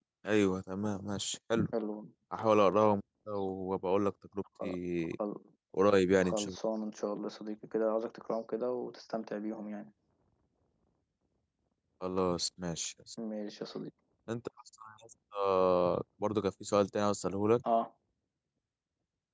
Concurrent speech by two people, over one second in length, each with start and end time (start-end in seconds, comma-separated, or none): none